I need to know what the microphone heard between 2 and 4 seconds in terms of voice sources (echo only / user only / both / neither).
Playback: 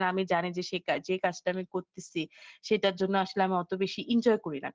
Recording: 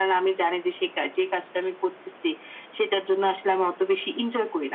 echo only